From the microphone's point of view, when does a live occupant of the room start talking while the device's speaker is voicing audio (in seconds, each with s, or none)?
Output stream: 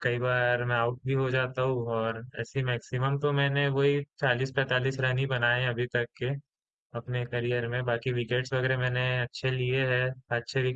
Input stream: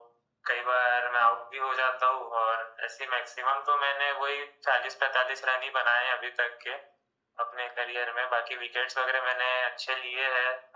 none